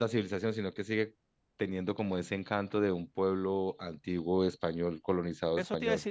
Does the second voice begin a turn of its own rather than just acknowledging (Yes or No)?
Yes